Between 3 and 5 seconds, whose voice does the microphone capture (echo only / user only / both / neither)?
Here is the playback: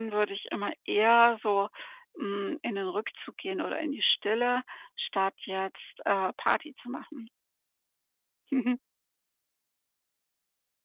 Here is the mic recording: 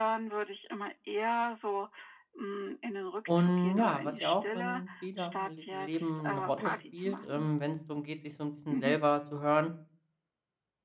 both